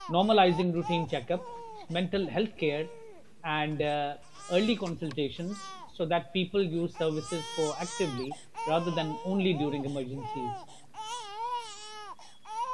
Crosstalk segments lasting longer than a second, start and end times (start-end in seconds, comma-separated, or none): none